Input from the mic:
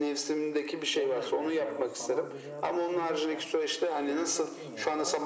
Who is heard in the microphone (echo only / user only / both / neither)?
both